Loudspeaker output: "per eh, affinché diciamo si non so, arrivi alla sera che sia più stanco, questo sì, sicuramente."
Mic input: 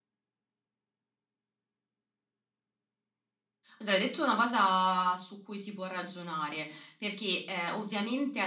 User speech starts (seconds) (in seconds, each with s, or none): 3.8 s